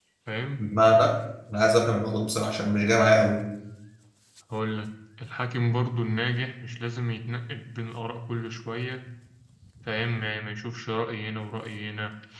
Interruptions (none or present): none